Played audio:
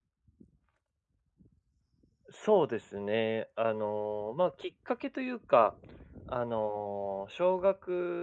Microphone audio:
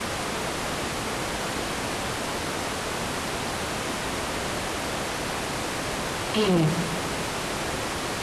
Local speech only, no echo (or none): ええ。